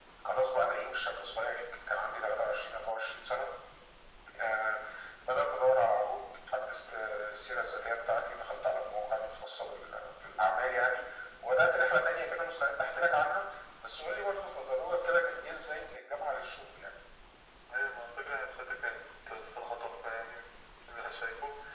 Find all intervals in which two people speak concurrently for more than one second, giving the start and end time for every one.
none

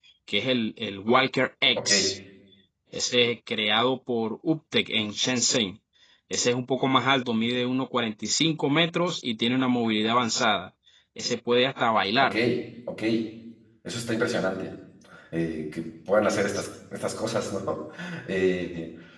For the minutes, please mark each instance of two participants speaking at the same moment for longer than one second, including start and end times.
none

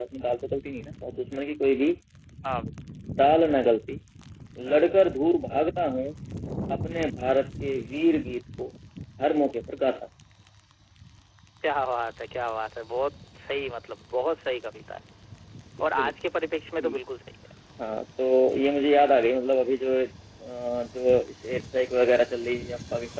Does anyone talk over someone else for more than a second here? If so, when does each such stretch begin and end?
none

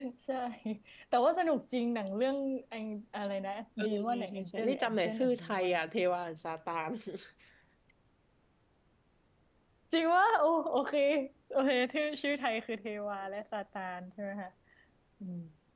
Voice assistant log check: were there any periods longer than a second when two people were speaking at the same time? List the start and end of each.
3.8-5.8

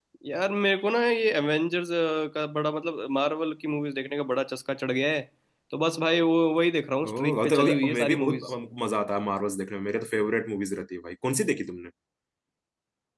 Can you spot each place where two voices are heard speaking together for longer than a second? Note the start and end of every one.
7.1-8.4

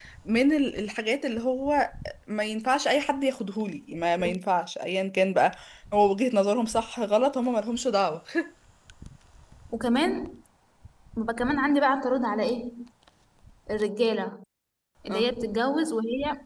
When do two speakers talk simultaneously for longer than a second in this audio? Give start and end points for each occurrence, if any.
none

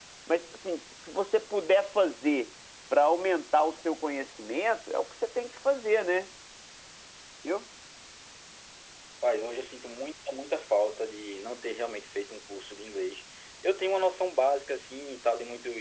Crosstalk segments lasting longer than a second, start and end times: none

